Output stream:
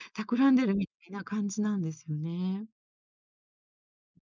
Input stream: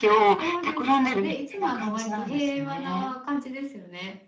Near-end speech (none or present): present